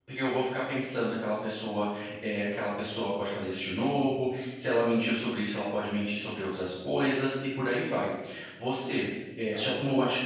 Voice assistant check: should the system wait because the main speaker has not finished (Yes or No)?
Yes